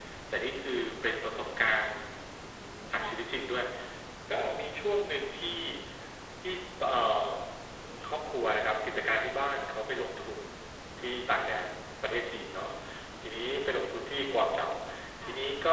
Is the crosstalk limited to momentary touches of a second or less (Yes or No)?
Yes